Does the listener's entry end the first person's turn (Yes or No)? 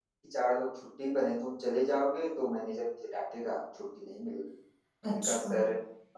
No